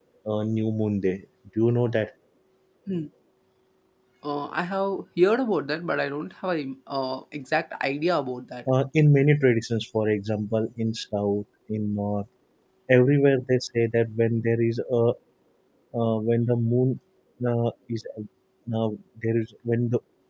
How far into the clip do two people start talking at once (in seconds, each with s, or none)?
none